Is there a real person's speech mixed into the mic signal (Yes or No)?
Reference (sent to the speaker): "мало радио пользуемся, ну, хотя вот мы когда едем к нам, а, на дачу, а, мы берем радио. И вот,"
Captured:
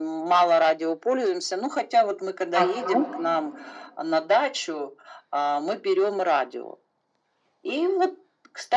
Yes